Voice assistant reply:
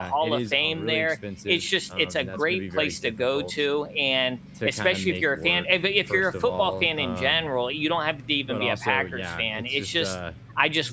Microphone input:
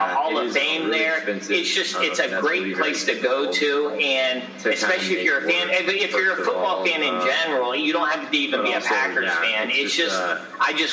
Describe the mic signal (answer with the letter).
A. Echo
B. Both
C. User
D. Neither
A